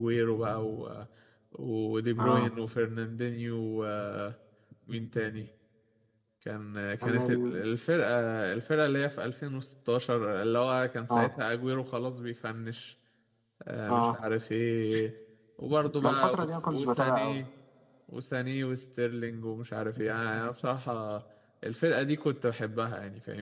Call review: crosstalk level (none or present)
present